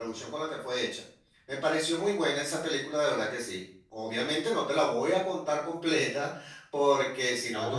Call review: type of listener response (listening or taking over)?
taking over